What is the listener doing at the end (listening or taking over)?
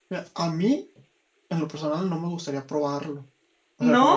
listening